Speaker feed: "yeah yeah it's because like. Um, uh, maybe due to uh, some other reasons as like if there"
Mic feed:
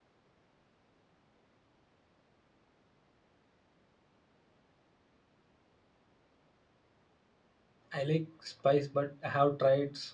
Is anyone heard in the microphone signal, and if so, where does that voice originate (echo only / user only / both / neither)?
user only